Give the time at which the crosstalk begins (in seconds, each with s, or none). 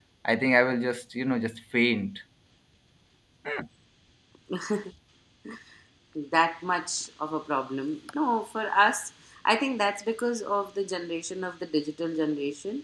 none